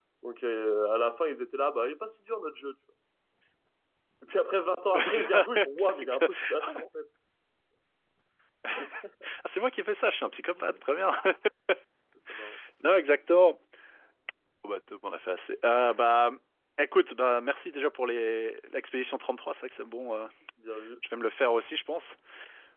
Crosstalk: present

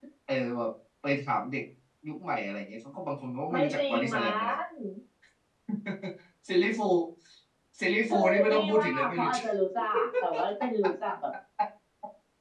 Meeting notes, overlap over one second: present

